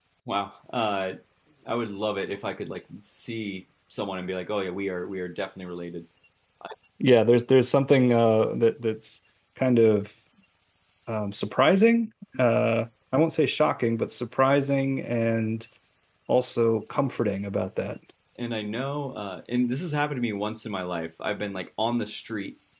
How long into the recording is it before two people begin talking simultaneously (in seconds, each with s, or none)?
none